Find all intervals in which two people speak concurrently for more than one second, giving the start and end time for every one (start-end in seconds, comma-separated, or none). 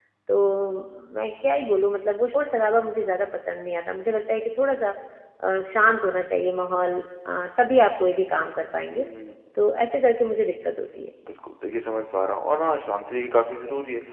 none